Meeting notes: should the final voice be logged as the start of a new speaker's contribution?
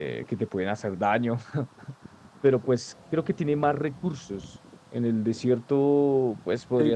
No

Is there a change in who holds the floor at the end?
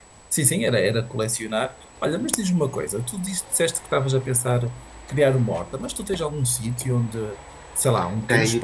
Yes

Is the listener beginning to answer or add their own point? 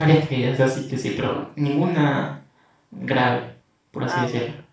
Yes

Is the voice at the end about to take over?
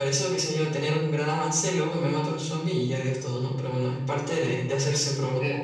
Yes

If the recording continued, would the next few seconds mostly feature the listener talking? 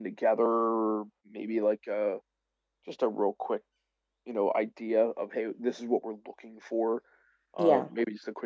No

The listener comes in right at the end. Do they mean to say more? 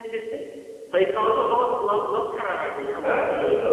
Yes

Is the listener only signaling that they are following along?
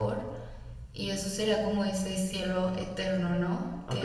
No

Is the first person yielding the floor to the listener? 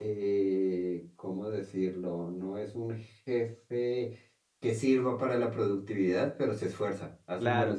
Yes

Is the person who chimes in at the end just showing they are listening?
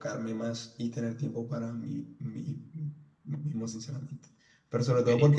Yes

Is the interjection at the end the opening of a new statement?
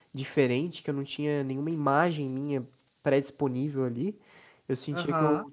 No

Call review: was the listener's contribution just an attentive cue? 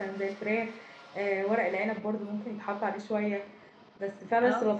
Yes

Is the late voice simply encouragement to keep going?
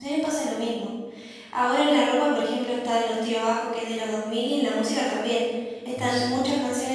Yes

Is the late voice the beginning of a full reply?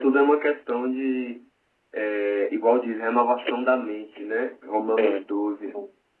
No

